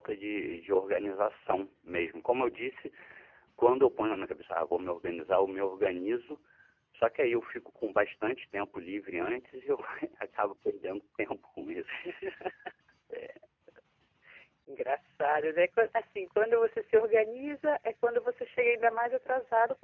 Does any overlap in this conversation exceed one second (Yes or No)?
No